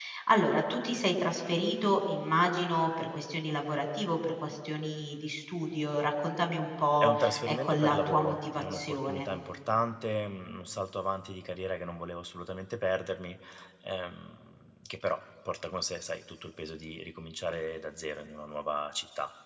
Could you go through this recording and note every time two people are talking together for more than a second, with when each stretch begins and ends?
7.0-9.2

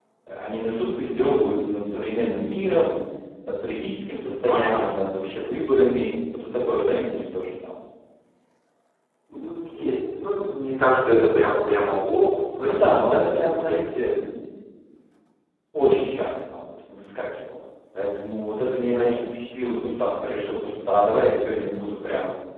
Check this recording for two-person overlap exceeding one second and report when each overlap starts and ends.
12.6-13.8

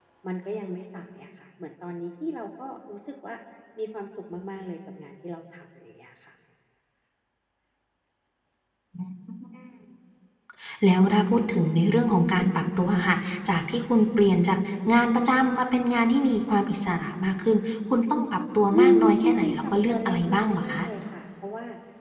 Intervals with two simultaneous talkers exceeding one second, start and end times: 18.7-20.8

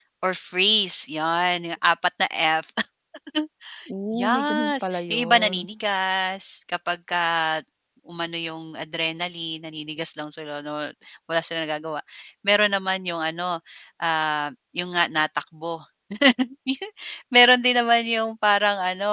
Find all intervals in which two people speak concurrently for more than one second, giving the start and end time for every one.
4.1-5.6

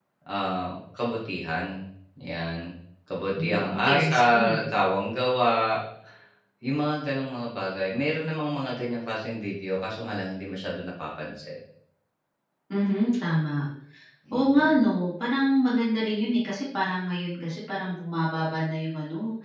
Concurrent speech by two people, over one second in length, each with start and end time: 3.4-4.7

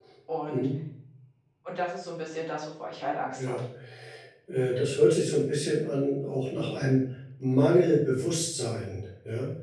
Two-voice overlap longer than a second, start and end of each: none

